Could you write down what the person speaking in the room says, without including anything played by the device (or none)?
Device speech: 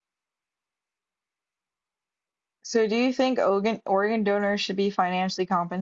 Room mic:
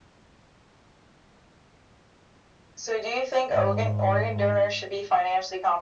Um,